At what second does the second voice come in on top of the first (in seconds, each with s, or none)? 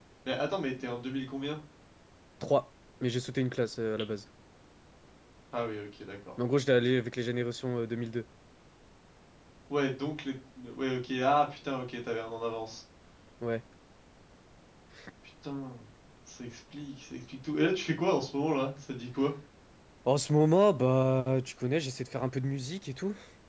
none